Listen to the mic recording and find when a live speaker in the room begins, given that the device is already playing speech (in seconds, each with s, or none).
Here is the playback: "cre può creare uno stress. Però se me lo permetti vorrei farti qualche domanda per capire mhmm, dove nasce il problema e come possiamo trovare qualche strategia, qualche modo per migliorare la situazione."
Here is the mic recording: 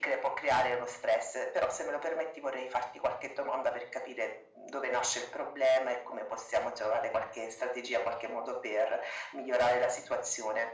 none